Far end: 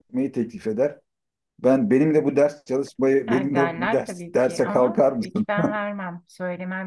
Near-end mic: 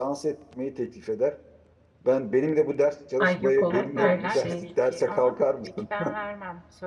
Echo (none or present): present